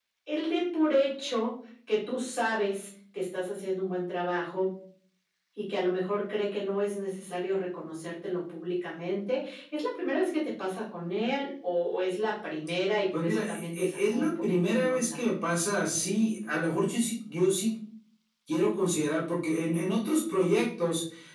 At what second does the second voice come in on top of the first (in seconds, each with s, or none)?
13.1 s